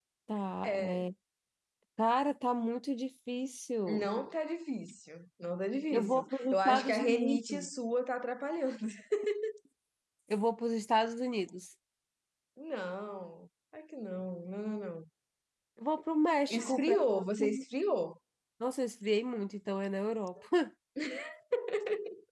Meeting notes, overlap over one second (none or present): present